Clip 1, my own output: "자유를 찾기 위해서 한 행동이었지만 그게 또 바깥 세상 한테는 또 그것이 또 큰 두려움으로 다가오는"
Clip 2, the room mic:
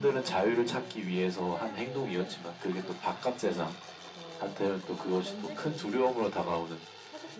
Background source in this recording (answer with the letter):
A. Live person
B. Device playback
A